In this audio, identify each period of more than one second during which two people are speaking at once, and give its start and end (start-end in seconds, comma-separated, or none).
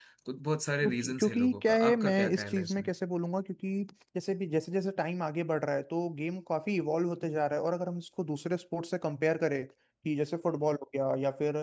0.8-2.9